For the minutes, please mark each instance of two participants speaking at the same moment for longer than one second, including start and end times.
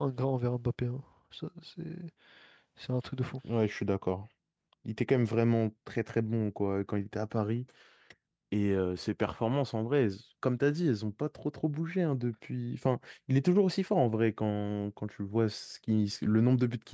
none

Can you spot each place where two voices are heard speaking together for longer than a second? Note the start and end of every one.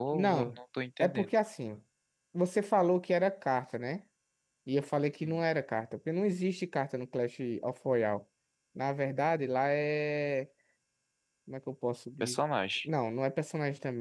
none

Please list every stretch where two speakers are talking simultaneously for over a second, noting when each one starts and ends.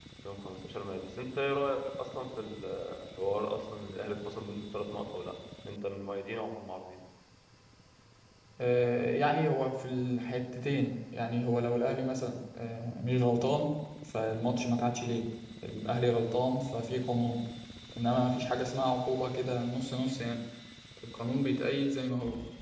none

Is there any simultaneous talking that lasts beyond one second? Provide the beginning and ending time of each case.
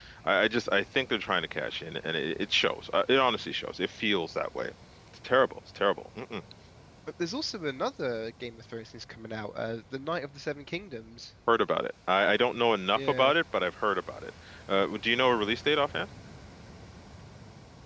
none

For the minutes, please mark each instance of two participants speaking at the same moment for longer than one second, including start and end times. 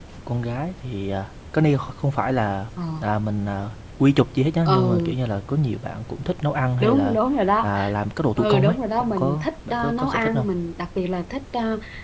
8.4-10.4

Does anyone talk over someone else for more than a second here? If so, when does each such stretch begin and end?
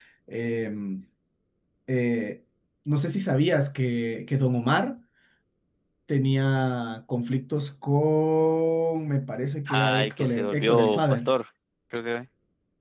9.7-11.3

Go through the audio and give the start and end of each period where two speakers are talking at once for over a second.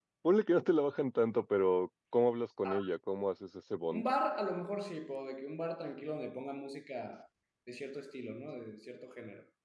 none

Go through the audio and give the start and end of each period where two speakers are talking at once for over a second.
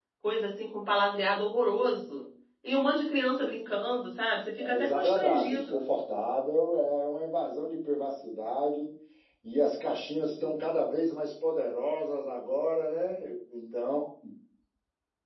4.6-5.9

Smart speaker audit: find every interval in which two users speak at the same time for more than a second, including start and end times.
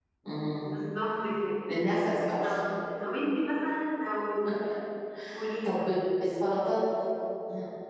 none

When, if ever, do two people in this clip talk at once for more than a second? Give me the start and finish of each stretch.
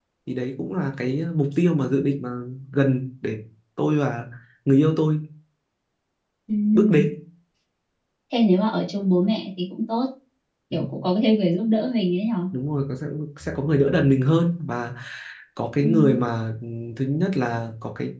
none

